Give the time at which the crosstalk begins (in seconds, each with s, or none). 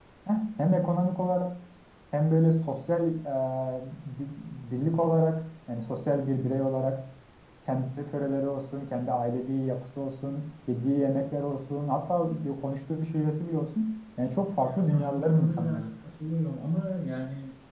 14.7 s